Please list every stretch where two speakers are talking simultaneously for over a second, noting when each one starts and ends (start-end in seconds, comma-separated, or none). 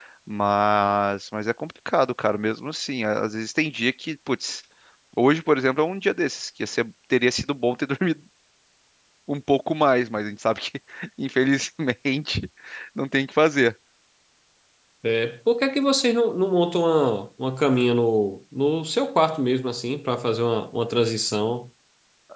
none